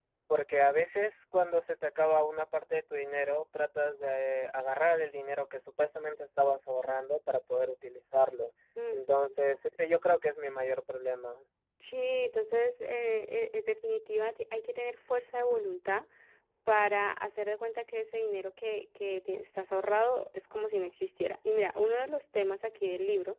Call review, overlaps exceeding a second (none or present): none